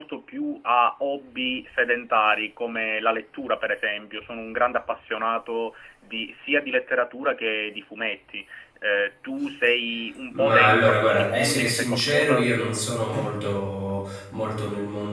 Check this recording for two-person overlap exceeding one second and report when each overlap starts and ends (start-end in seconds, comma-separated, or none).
10.3-12.5